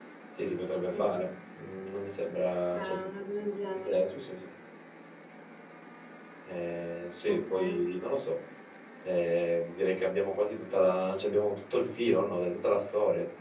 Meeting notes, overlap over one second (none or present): present